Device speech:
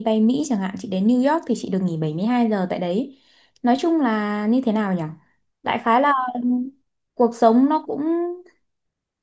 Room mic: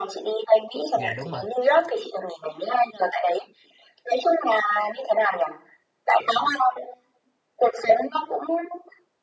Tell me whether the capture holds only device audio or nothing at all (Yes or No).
No